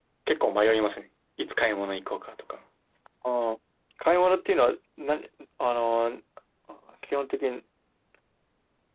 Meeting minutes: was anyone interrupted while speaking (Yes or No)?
No